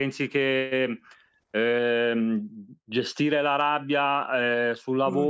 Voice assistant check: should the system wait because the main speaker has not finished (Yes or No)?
Yes